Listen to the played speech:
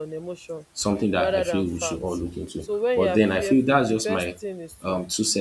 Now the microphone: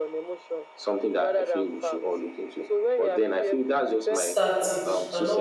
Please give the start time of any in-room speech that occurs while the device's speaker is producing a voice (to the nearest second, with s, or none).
4 s